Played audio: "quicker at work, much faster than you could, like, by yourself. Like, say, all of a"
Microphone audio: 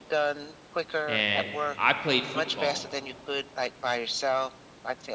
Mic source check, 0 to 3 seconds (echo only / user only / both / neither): both